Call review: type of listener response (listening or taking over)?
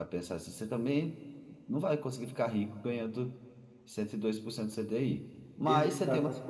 listening